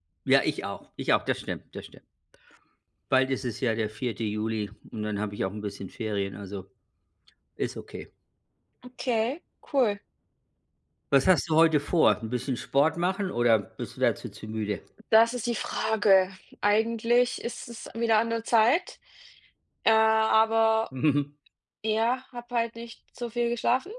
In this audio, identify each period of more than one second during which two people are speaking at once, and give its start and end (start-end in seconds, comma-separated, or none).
none